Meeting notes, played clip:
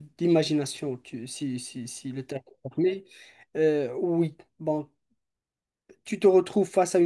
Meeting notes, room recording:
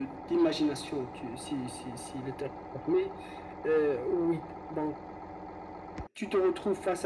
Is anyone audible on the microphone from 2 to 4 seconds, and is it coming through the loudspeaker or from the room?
echo only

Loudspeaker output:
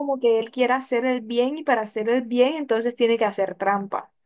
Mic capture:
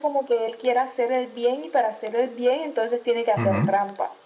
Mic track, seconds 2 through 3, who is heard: echo only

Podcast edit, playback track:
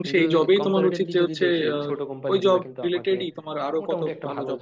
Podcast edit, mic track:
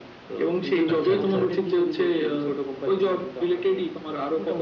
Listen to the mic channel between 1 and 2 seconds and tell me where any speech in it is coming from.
both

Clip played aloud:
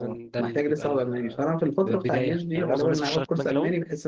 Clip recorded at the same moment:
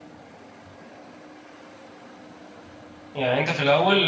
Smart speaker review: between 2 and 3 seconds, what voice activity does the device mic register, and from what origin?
neither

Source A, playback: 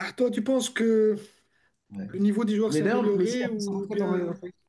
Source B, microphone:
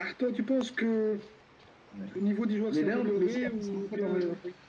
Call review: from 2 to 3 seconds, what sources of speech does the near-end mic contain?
echo only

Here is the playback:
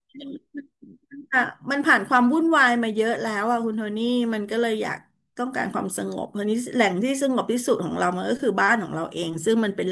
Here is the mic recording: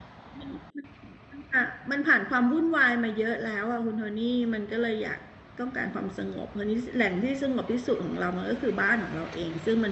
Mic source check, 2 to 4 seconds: echo only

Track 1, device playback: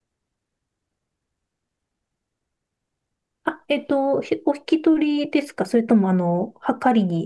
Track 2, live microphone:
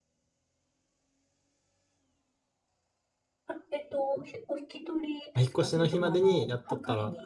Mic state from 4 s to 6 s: both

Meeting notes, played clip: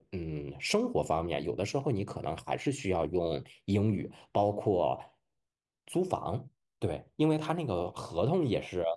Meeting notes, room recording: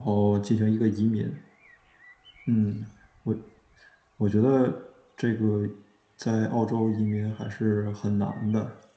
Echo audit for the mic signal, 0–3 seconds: user only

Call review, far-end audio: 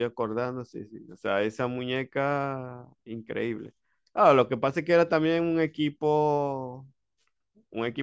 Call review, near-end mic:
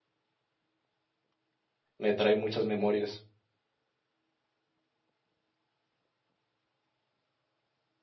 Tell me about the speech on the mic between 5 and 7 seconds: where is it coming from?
neither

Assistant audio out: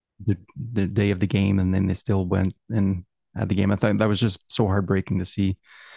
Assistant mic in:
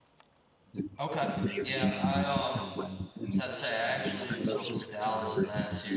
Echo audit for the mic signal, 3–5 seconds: both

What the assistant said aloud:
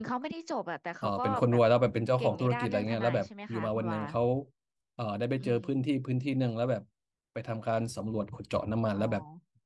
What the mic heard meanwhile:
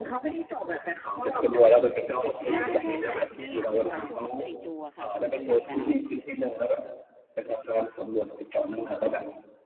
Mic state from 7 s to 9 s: echo only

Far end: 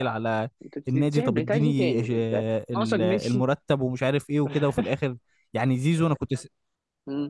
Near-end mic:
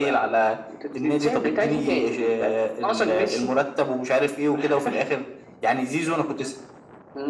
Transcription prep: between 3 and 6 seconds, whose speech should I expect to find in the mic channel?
echo only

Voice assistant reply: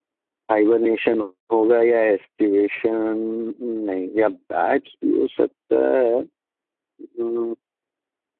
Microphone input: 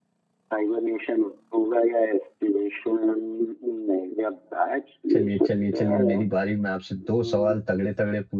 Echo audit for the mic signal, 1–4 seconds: echo only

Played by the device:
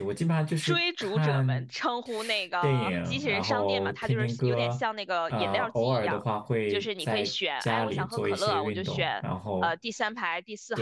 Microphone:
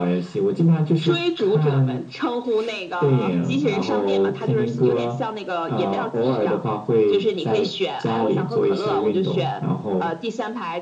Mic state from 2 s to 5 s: echo only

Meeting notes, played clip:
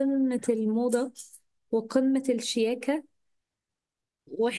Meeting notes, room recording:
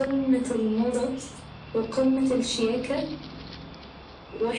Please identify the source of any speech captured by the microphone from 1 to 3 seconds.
echo only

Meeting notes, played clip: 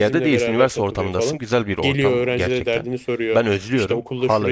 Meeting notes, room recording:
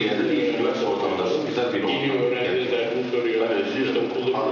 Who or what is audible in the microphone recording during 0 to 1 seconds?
echo only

